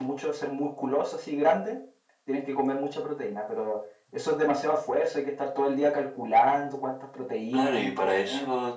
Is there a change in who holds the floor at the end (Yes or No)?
Yes